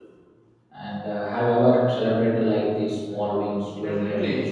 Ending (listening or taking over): taking over